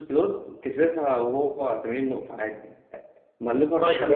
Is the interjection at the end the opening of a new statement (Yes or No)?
No